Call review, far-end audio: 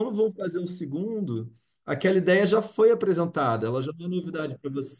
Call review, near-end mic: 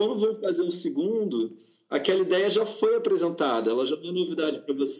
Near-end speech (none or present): none